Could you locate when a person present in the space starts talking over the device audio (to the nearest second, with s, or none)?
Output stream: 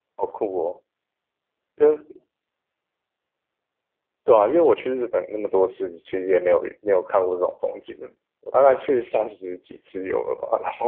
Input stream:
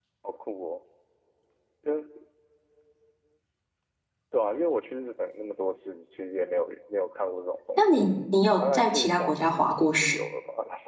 8 s